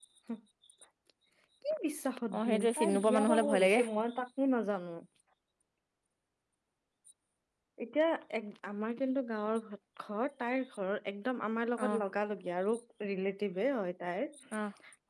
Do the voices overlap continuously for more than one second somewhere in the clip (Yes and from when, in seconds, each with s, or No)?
Yes, from 2.4 s